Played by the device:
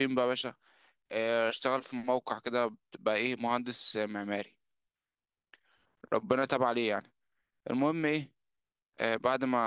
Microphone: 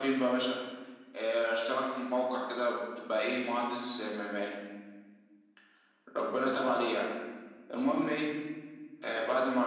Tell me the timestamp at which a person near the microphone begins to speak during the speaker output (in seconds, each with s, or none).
none